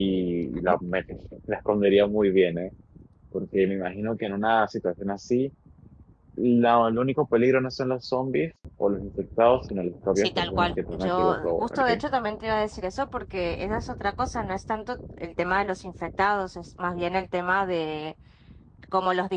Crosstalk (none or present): present